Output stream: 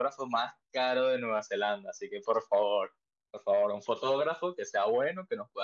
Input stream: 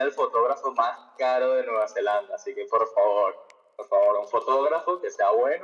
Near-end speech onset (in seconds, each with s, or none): none